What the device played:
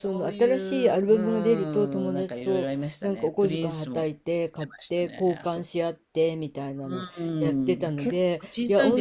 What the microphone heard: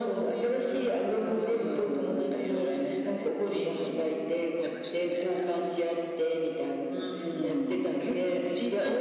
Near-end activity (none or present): none